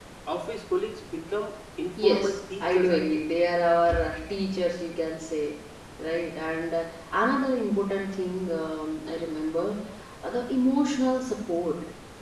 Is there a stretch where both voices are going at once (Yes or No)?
Yes